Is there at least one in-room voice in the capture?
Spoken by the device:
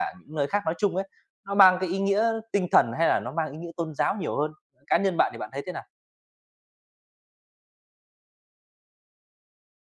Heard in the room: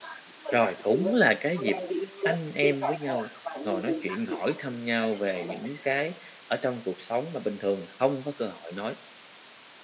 Yes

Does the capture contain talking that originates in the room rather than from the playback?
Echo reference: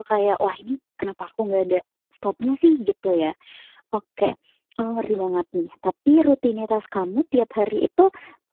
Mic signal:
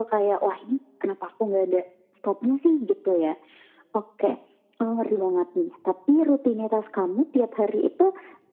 No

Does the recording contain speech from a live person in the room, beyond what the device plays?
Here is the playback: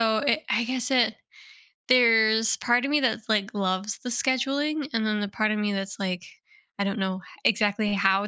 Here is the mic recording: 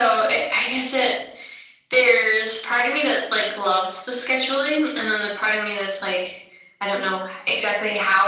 No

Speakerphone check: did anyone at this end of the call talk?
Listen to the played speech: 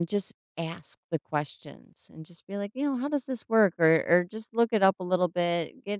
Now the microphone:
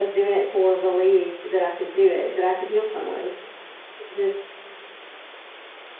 Yes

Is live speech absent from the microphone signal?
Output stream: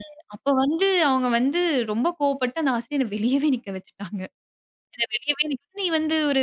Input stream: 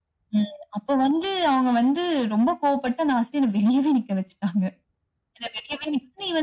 Yes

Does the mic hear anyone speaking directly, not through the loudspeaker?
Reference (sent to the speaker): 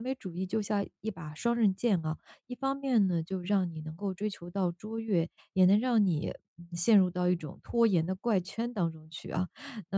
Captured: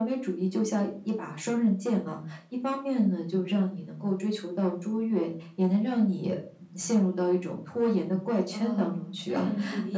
Yes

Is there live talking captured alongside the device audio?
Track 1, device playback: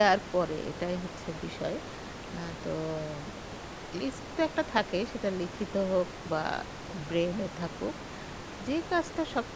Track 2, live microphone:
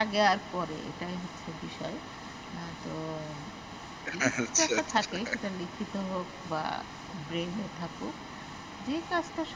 Yes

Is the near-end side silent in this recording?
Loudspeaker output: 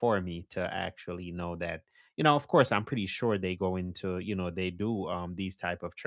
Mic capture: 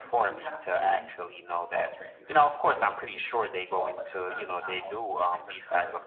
No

